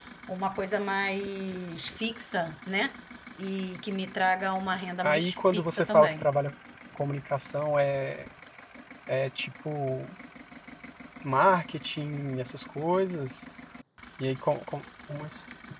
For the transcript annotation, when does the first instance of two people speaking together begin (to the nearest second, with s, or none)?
5 s